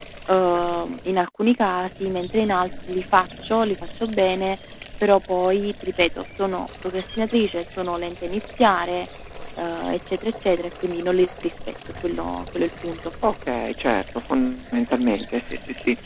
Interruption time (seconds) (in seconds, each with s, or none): none